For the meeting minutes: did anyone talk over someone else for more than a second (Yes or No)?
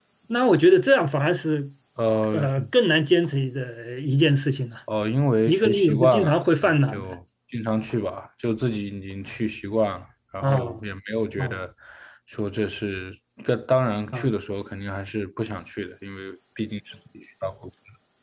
Yes